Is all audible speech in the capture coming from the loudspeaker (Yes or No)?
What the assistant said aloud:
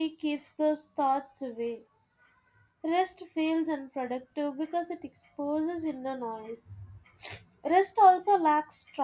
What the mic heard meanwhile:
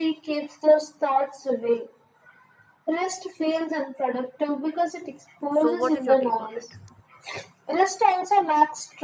No